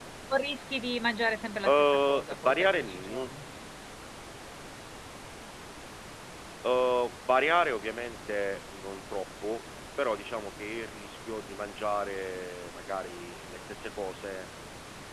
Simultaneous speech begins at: 1.6 s

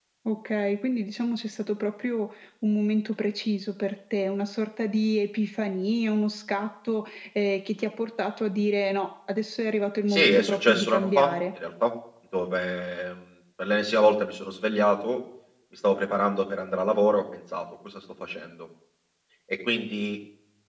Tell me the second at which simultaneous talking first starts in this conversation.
10.1 s

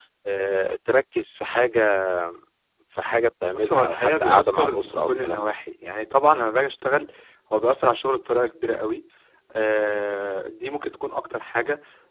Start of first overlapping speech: 3.5 s

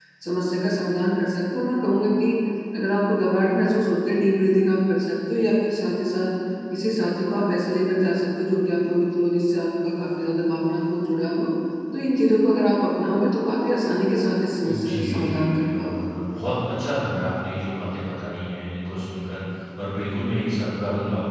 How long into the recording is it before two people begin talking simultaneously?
14.6 s

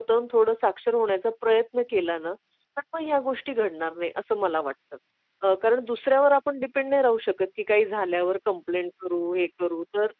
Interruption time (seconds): none

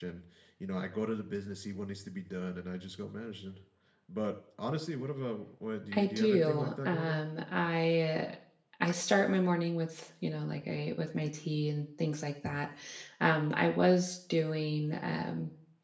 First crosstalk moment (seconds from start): 5.9 s

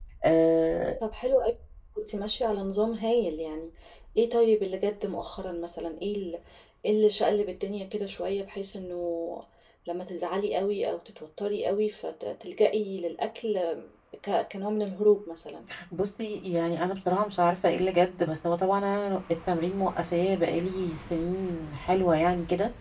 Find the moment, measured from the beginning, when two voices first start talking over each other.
none

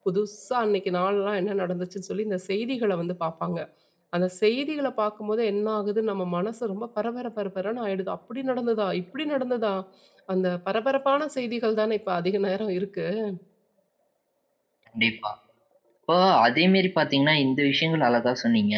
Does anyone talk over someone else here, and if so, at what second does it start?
none

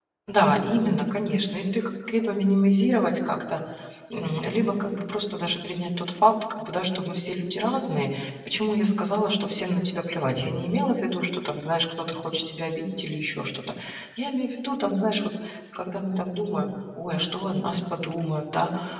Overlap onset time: none

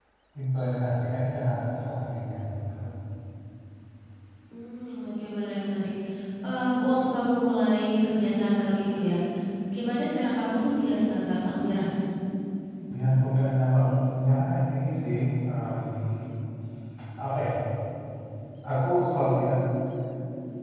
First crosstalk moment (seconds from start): none

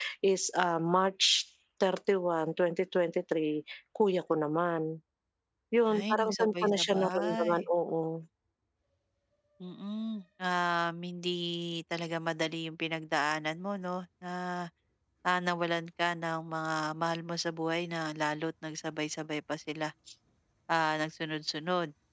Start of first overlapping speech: 6.0 s

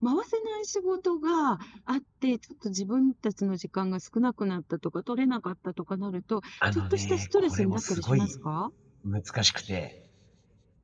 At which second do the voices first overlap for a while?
6.6 s

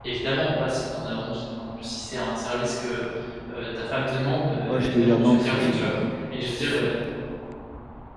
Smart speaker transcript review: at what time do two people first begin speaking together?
4.7 s

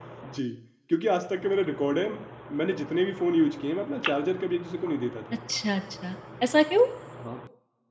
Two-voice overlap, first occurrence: none

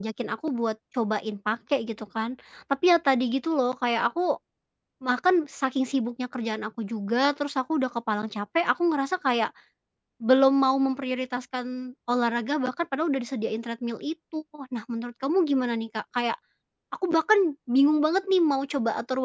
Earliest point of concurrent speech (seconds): none

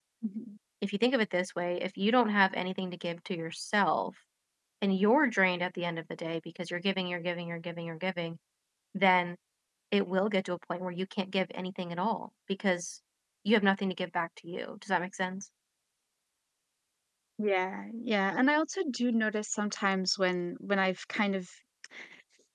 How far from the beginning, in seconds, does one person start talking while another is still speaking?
none

